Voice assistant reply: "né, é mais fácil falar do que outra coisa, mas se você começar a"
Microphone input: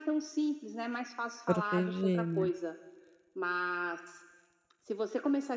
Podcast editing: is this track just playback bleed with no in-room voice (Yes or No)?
No